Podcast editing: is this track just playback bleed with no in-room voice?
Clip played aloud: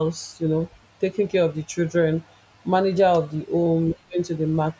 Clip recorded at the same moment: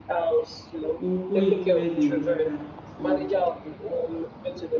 No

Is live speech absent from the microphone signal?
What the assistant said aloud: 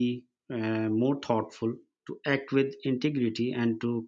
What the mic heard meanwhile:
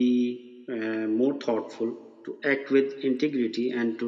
Yes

